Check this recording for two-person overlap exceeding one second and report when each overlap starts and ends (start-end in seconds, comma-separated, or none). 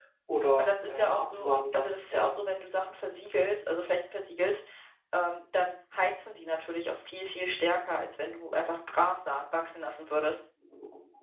0.6-2.4